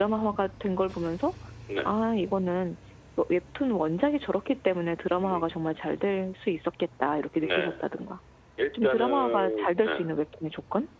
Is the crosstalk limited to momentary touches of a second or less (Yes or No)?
No